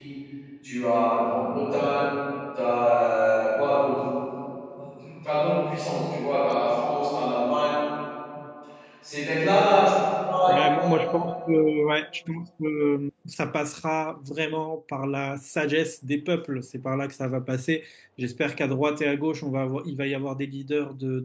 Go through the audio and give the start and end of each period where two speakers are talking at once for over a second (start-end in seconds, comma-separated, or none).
none